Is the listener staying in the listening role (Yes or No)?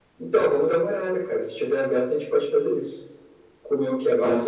Yes